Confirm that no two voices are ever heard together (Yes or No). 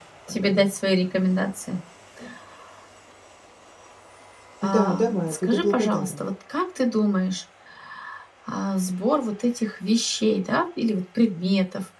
No